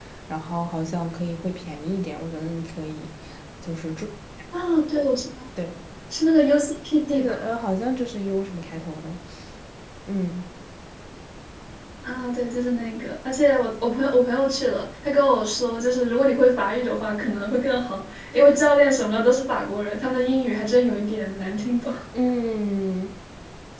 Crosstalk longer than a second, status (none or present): none